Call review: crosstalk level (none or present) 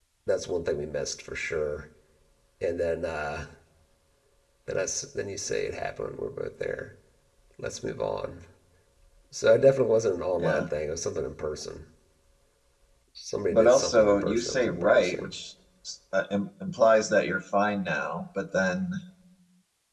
present